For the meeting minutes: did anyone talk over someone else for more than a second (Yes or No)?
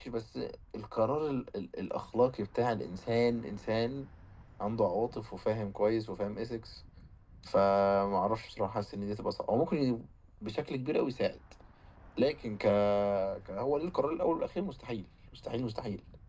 No